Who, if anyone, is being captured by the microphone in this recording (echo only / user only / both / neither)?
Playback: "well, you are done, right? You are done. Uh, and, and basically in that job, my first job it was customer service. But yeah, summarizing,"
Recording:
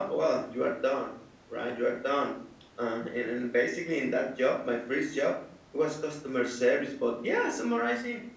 echo only